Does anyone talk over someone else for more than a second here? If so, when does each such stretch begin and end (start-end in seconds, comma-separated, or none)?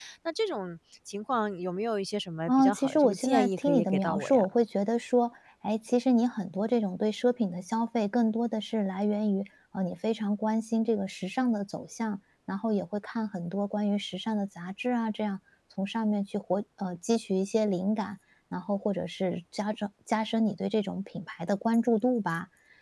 2.5-4.4